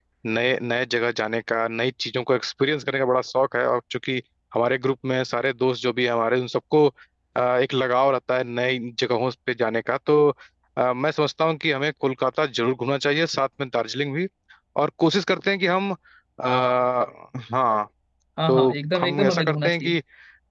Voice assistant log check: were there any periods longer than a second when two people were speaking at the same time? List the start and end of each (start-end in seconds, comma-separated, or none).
18.5-19.9